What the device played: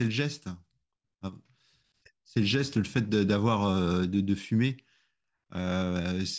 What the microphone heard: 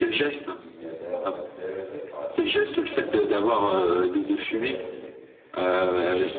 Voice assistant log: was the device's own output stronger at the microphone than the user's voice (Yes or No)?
Yes